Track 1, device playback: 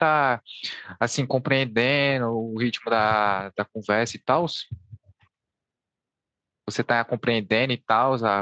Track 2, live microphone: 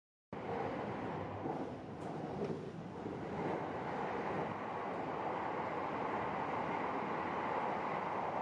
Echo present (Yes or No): No